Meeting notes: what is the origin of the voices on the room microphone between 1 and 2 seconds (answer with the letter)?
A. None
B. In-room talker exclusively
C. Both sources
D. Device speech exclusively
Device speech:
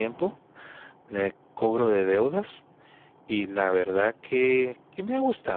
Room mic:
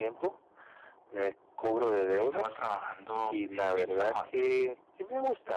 D